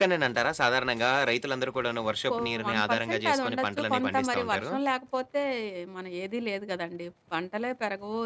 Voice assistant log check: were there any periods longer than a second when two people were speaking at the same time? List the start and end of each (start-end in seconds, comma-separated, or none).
2.3-4.7